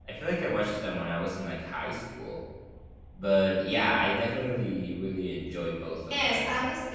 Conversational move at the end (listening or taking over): taking over